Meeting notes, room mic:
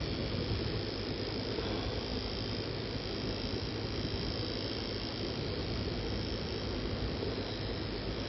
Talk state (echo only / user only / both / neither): neither